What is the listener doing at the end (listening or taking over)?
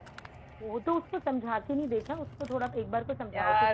taking over